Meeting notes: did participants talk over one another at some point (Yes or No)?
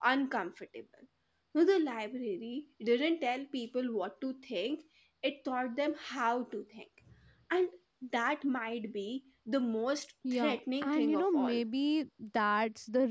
Yes